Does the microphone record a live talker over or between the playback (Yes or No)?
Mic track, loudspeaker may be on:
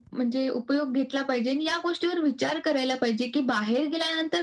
No